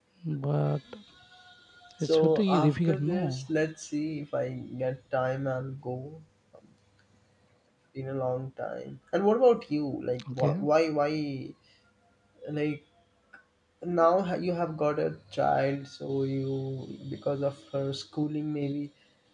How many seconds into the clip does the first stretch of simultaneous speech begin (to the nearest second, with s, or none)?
2 s